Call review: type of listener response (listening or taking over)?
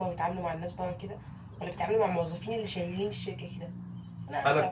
listening